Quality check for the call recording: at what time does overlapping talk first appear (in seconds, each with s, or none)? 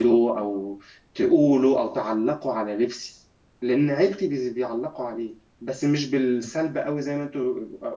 none